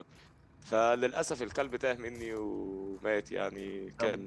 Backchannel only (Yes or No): No